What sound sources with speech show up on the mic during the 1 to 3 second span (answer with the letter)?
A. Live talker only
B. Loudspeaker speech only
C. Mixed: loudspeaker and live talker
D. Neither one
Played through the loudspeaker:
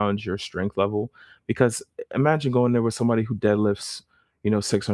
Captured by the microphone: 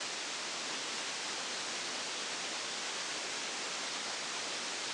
D